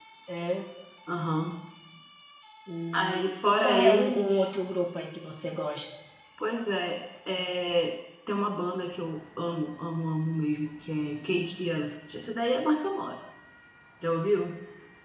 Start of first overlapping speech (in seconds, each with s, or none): 2.9 s